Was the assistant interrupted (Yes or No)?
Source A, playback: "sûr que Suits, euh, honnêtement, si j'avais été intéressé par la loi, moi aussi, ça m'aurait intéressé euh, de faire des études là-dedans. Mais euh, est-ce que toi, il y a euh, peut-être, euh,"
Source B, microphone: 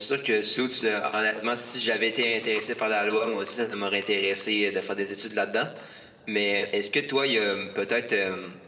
No